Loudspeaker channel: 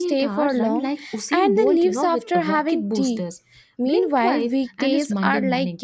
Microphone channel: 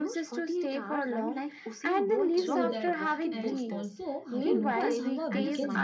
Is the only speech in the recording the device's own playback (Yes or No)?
No